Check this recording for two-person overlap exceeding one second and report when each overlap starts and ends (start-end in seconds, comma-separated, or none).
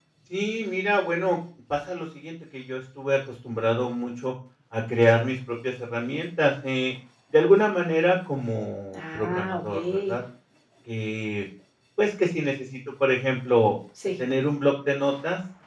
8.9-10.2